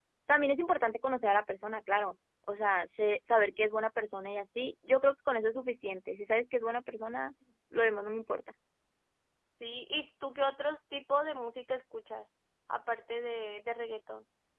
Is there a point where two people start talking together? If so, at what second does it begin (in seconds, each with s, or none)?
none